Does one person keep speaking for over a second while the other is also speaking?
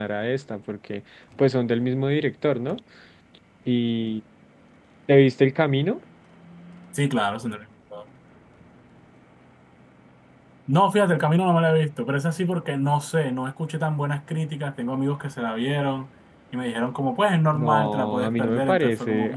Yes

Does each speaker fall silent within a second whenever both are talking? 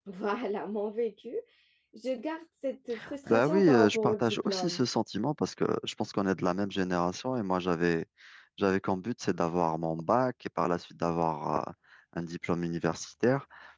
No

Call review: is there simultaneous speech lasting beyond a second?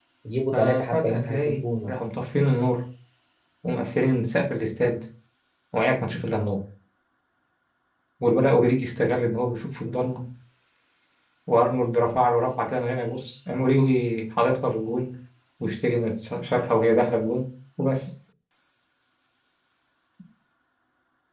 Yes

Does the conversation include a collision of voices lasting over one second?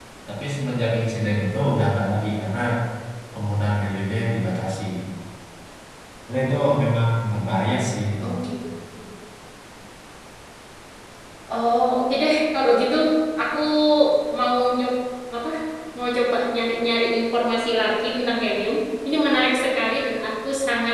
No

